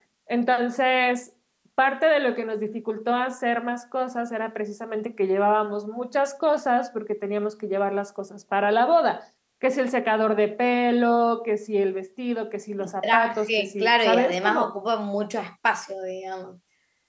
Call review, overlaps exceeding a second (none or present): present